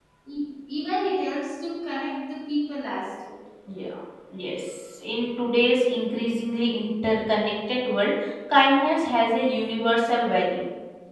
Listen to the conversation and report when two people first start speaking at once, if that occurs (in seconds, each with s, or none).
none